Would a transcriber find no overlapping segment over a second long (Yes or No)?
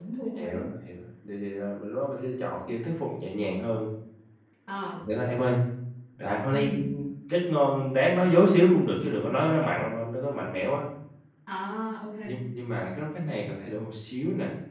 Yes